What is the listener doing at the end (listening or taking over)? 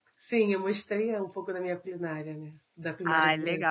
taking over